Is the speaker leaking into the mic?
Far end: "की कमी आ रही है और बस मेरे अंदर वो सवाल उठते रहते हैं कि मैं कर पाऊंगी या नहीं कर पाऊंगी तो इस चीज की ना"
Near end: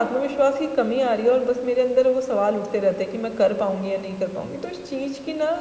Yes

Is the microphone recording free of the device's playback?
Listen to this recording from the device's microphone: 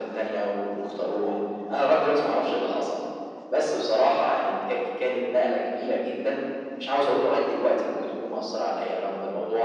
No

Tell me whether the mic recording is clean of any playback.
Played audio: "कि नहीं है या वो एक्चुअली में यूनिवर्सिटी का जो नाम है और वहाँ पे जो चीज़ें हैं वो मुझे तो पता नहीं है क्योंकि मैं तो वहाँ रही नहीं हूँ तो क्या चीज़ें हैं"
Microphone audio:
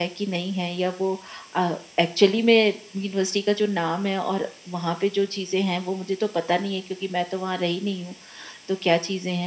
No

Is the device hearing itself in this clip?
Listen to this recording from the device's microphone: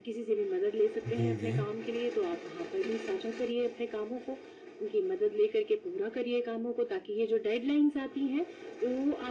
Yes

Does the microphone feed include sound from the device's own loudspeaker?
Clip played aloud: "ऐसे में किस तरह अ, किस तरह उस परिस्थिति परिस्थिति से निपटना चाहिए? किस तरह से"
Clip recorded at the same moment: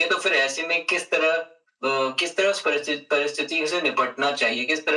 Yes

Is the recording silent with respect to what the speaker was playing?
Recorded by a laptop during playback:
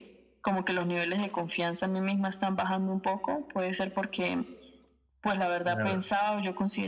No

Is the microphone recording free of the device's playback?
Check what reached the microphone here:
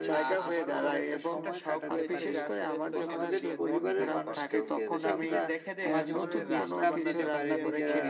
No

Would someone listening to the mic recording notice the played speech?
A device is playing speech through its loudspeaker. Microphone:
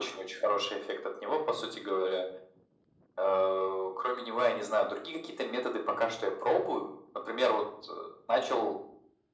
Yes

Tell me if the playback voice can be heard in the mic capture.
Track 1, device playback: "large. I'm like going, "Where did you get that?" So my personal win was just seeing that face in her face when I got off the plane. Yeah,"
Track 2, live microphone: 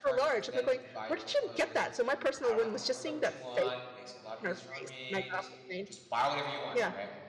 Yes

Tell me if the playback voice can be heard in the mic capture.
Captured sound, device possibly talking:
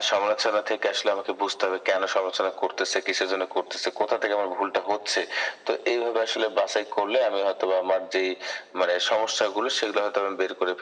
Yes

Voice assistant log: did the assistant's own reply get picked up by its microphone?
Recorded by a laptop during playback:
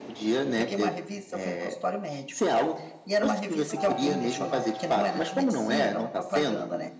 Yes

